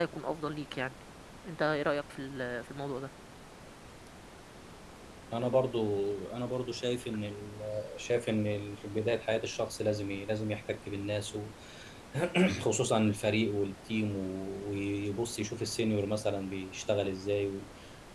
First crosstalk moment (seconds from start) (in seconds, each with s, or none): none